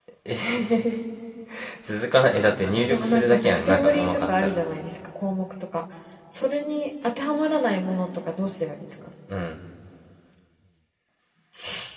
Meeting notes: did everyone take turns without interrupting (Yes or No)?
No